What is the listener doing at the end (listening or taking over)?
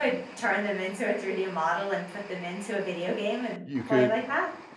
taking over